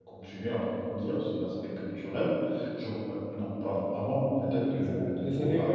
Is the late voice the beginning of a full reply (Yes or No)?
Yes